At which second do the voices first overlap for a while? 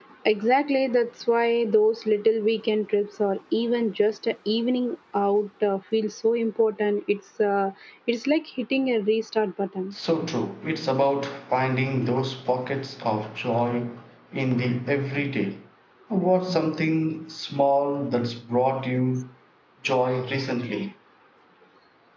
none

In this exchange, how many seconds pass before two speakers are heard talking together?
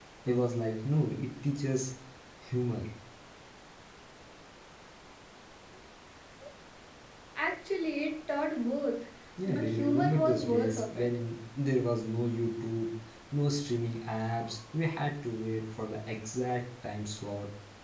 9.4 s

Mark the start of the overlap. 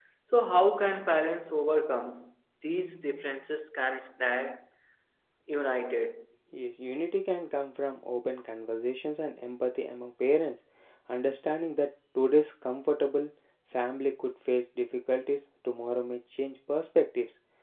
none

